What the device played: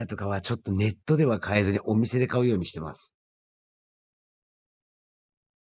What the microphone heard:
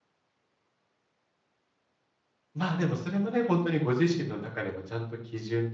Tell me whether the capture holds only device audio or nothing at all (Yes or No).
No